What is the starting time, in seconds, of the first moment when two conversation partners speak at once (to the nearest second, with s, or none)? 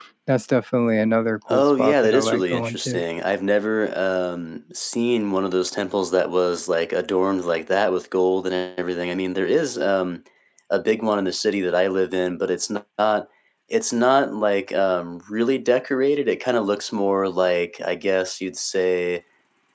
1 s